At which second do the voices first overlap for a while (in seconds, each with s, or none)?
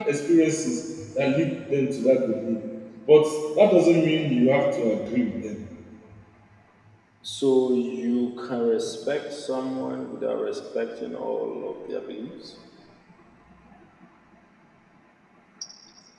none